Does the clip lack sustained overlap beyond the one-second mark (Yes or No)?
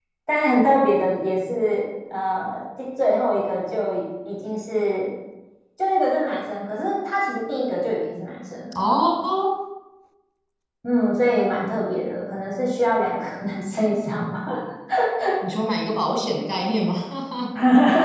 Yes